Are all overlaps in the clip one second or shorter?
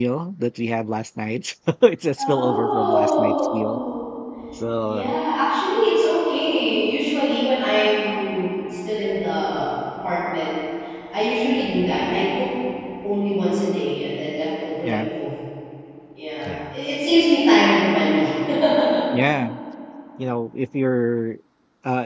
No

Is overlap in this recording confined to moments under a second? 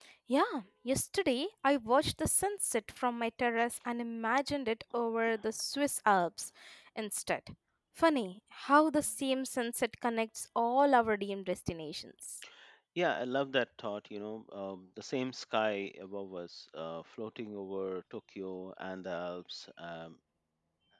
Yes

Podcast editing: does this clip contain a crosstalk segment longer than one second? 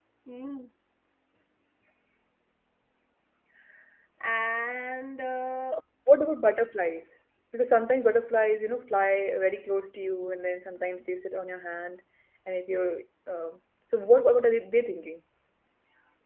No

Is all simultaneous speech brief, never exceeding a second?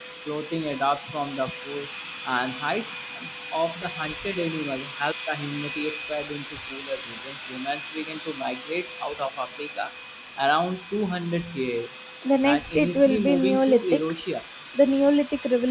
No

